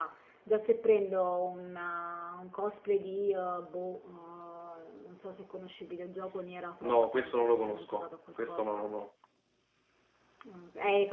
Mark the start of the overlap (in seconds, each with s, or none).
6.8 s